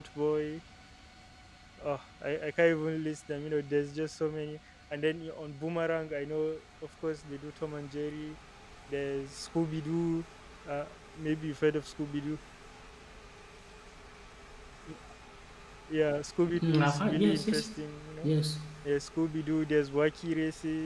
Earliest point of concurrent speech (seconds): 17 s

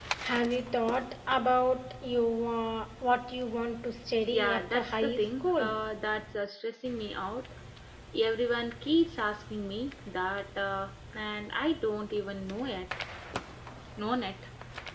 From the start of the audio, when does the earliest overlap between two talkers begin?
4 s

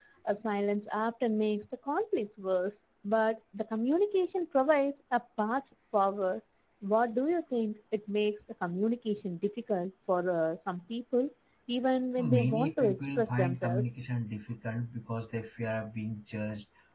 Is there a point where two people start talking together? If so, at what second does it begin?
12 s

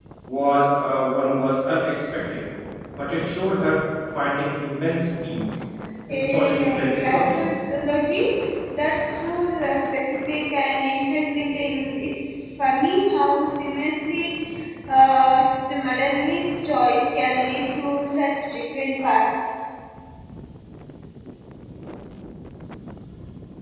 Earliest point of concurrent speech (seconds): 6 s

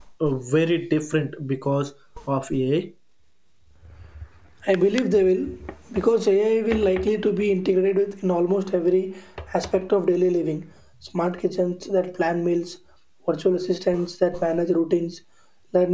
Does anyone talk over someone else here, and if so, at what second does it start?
none

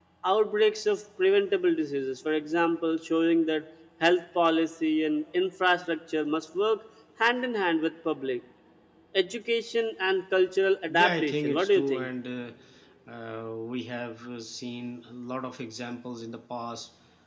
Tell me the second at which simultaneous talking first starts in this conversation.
11 s

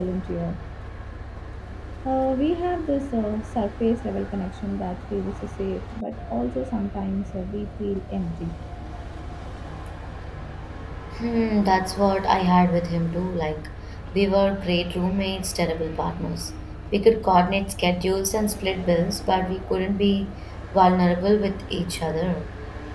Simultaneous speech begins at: none

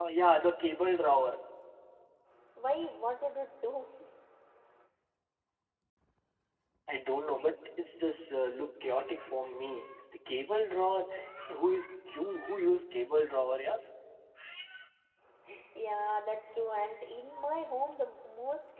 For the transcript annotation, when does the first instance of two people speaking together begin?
none

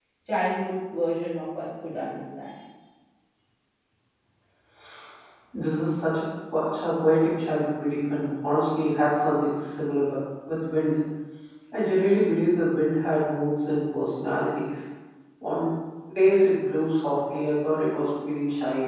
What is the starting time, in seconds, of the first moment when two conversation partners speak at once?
none

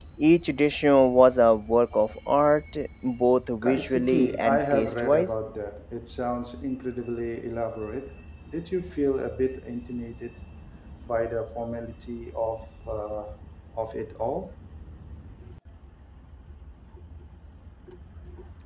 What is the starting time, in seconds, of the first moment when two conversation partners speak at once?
4 s

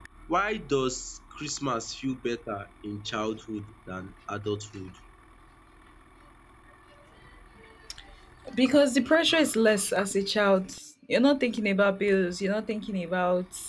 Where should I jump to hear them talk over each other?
none

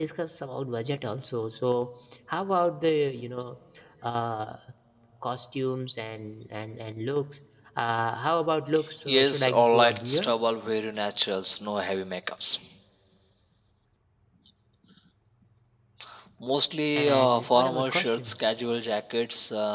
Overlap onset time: 9 s

